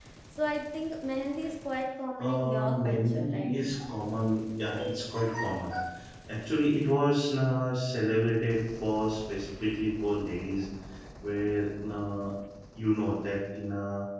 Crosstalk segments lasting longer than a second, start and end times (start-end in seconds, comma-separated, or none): 2.2-3.5